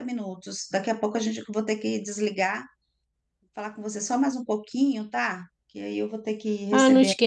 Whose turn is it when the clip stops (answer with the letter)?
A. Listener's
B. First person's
A